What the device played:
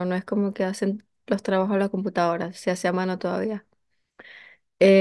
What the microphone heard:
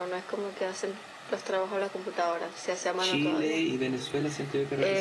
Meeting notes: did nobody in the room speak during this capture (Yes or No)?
No